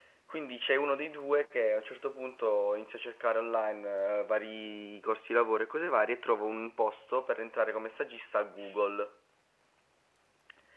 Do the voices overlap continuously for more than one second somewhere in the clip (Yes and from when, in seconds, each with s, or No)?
No